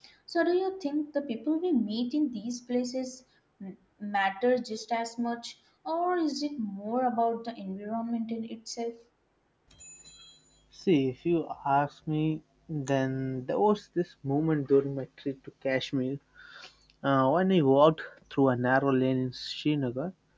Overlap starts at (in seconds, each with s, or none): none